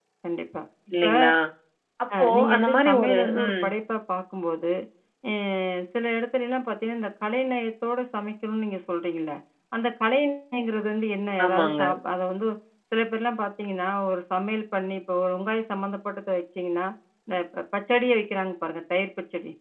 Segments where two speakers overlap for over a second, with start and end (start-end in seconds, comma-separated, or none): 2.2-3.6